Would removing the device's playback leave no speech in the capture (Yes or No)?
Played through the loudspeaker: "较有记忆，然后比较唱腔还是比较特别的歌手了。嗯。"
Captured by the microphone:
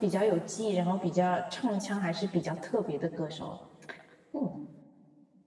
Yes